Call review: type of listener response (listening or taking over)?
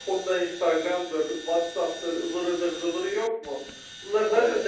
listening